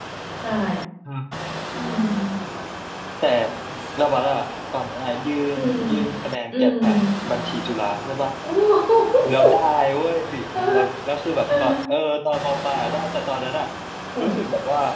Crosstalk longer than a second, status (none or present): none